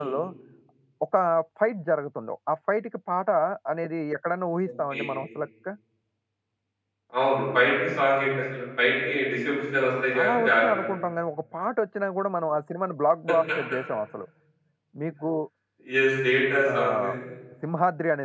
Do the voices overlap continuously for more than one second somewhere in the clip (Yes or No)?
No